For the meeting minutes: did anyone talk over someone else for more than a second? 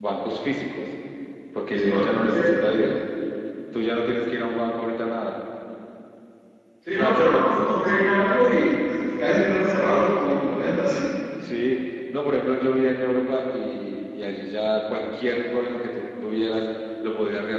Yes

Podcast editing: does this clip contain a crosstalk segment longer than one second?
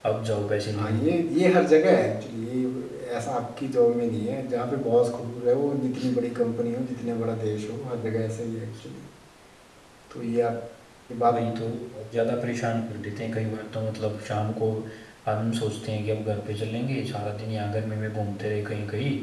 No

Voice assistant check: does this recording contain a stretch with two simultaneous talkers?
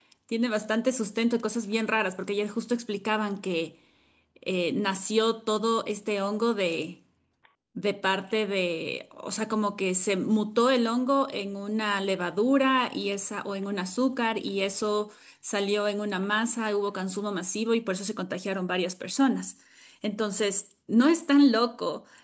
No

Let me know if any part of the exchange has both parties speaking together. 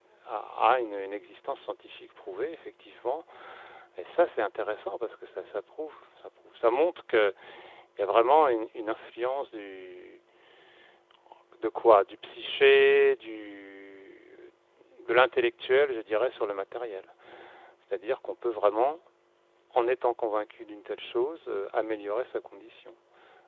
No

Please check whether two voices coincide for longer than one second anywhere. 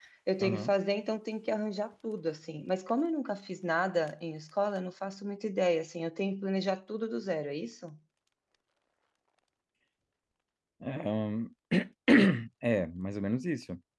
No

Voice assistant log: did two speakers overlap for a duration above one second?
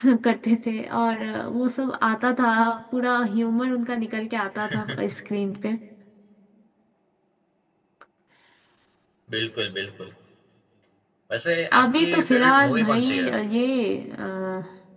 Yes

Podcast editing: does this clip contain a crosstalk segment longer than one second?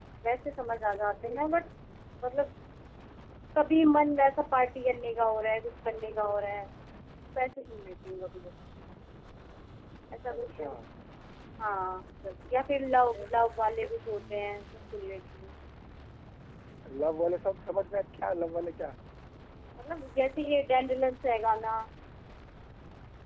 No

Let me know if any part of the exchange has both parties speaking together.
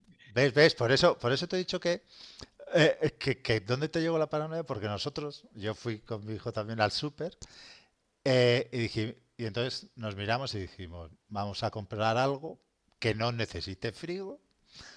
No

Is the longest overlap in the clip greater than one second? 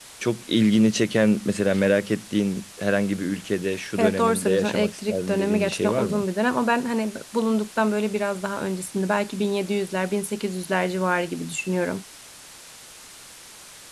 Yes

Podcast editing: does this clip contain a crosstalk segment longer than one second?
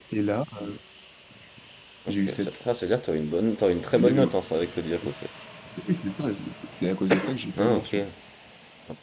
No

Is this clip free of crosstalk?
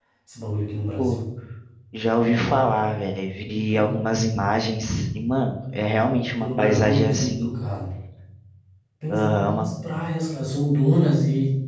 No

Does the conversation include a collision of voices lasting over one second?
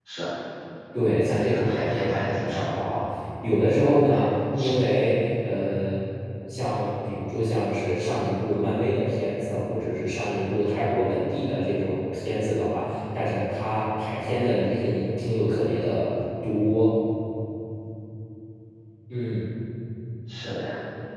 Yes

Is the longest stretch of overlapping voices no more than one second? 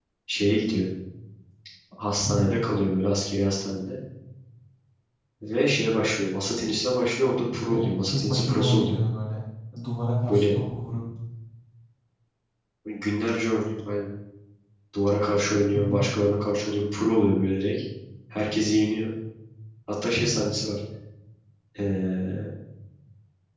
No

